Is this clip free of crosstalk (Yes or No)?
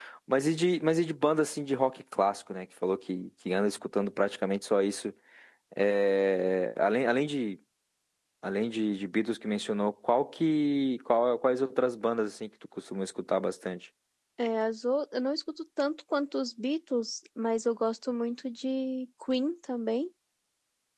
Yes